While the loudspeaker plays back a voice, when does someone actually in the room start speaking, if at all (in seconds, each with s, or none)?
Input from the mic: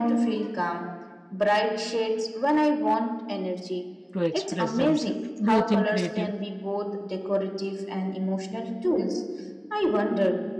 4.1 s